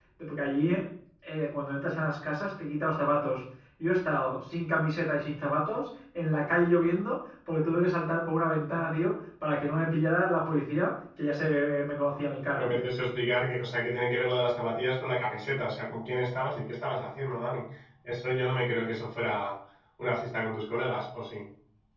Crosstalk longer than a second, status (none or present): none